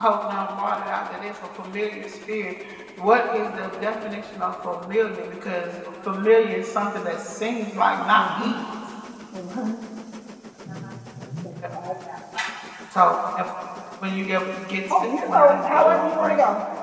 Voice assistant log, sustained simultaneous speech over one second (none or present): present